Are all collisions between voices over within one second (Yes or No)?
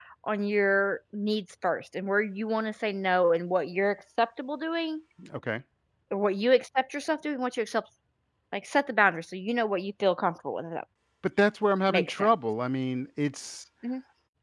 Yes